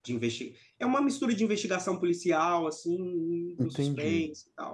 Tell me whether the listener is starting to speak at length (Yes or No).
Yes